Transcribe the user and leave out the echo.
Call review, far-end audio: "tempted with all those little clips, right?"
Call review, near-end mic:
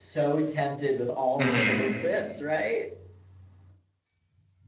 hmm

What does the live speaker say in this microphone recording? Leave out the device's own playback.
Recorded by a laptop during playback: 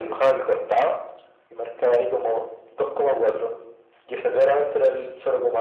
none

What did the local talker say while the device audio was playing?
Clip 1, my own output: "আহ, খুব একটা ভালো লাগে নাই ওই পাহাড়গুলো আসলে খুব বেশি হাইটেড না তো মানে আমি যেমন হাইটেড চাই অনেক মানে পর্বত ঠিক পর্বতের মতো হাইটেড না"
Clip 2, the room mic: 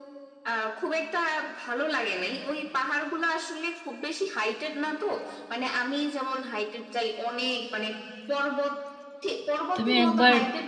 তুমি একবার

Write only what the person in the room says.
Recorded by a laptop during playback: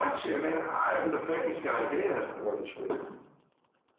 It's not the ref the right choice.

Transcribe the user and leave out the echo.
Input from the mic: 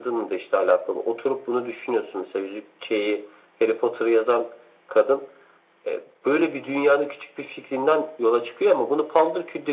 none

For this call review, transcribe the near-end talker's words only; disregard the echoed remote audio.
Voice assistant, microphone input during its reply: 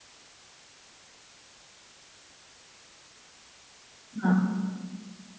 हाँ

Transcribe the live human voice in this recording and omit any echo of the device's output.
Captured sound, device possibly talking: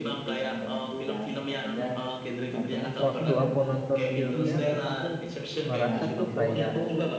Waktu aku nonton filmnya, aku, aku ngerasa tuh kayak

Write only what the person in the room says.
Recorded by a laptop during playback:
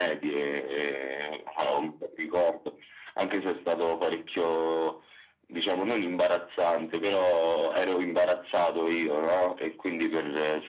none

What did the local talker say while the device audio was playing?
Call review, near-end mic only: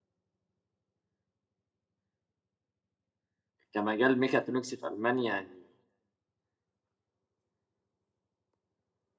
كمجال ميكاترونكس في المانيا يعني

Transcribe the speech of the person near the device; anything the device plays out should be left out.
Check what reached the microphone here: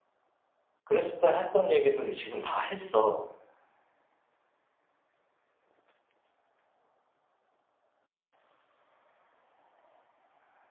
그랬을 때 했던 얘기들을 지금 다 했어.

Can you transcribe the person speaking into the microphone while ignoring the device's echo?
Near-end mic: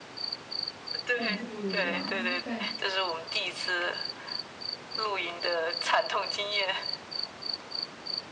很不一样，感。

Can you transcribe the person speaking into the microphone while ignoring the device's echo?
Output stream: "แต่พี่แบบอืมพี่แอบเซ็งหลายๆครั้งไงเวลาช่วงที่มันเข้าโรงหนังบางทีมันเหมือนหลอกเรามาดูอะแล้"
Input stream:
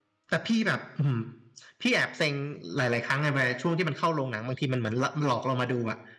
none

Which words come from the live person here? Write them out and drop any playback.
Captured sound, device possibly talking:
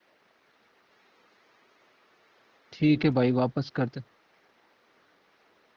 ठीक है भाई वापस करते

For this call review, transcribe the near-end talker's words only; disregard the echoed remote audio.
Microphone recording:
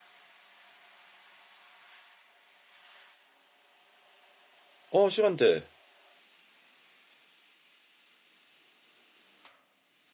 어, 시간대.

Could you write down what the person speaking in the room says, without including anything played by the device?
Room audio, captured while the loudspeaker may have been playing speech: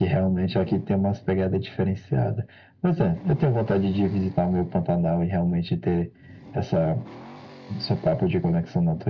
none

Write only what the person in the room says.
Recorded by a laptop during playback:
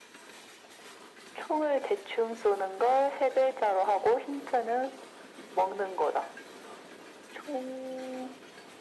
none

